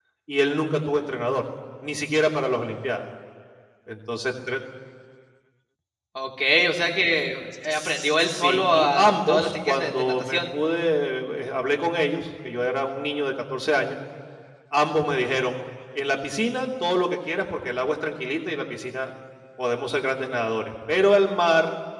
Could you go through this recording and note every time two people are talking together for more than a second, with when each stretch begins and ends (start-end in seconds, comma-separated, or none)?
7.7-10.4